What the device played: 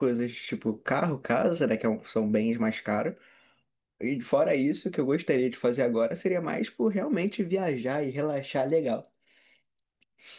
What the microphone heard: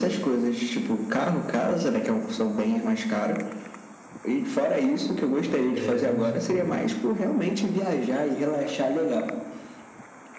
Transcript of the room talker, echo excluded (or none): é, vamos supor,